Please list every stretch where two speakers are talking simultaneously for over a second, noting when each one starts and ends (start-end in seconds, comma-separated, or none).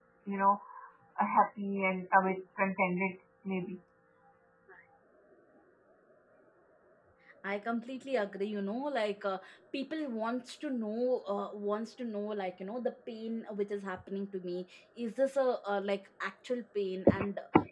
none